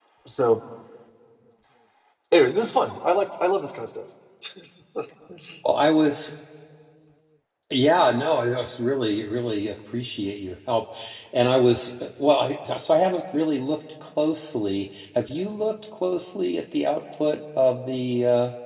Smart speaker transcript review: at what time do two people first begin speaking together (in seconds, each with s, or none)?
none